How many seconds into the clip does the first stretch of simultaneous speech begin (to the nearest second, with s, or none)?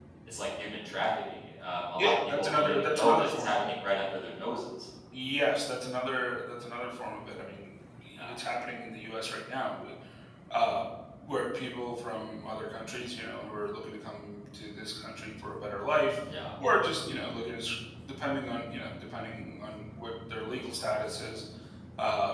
2 s